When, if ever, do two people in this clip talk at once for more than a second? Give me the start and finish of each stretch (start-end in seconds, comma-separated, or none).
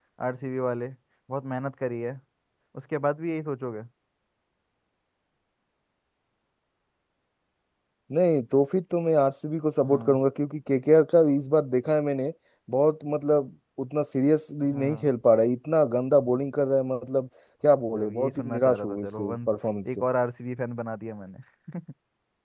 18.0-19.5